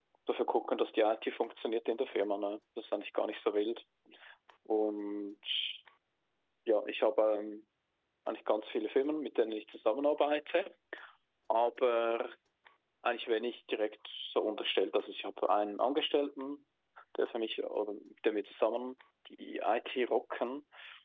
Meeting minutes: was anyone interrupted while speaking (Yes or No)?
No